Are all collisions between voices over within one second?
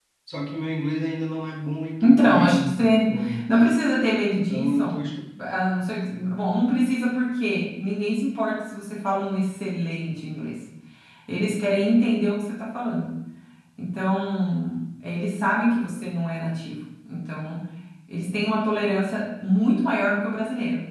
No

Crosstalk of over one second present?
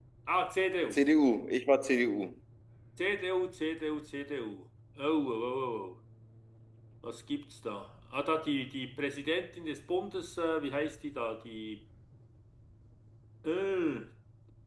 No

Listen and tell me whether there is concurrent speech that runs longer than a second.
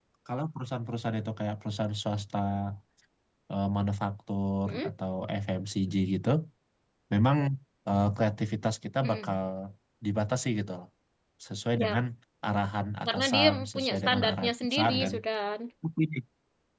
Yes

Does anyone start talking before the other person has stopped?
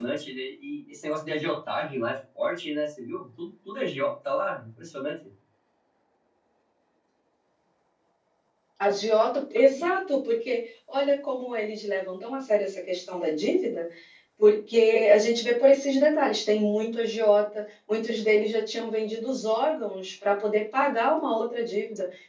No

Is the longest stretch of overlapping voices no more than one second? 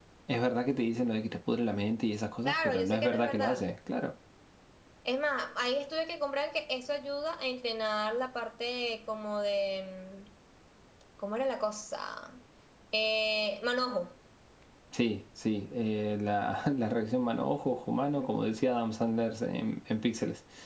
No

